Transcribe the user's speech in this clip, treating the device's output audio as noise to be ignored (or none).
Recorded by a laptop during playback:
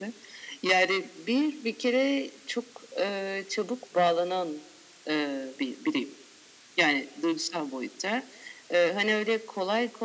none